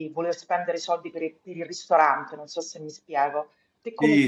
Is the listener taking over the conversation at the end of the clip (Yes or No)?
Yes